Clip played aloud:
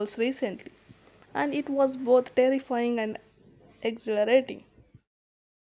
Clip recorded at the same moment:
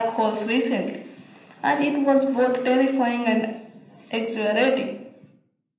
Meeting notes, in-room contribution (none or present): none